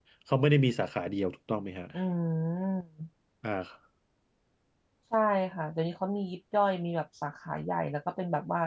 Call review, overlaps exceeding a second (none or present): none